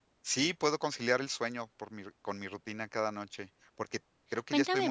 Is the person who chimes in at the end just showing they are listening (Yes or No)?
No